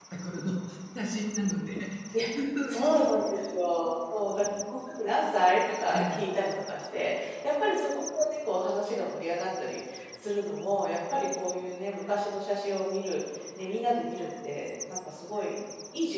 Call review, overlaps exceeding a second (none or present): none